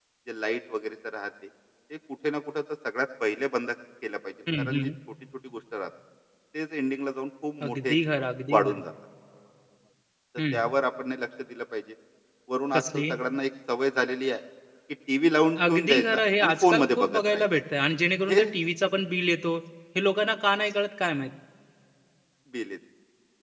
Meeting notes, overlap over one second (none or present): present